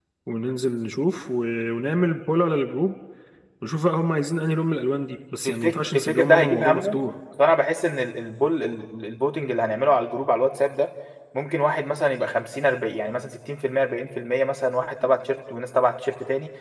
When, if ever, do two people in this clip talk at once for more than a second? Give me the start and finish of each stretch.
5.4-7.0

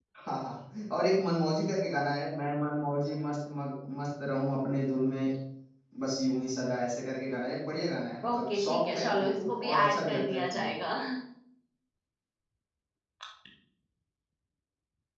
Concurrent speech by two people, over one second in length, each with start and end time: 8.3-10.7

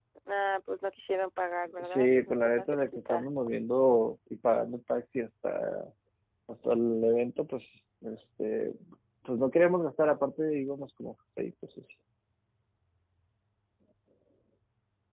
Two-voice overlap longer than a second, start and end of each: 1.8-3.3

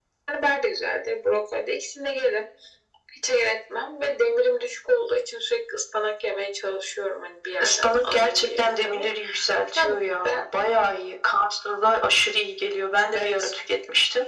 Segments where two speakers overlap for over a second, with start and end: 7.6-9.1

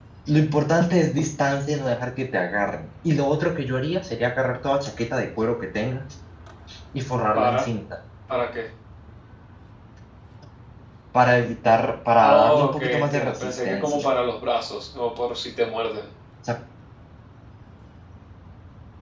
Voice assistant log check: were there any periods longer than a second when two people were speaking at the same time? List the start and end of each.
12.2-14.1

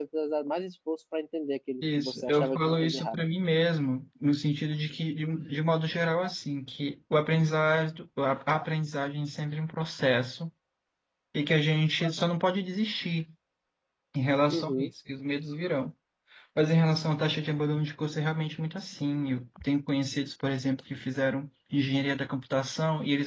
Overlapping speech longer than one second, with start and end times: 1.8-3.1

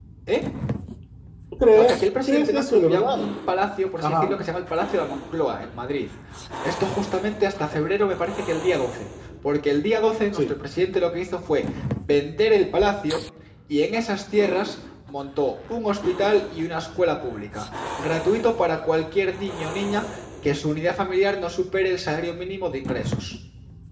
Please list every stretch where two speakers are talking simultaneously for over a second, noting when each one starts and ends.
1.7-3.3

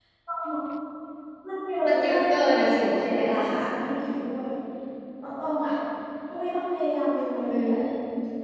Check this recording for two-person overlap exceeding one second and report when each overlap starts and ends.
1.9-3.6

